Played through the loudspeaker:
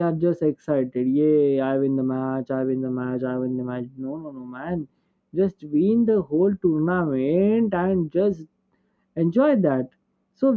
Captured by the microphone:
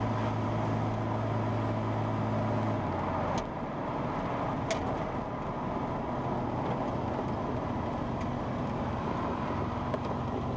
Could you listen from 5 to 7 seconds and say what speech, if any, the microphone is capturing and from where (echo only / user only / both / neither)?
neither